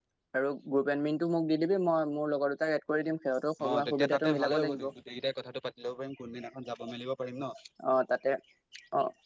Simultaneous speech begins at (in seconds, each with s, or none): 3.6 s